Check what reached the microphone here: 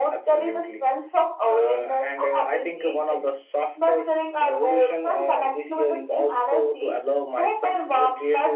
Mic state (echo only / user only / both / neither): echo only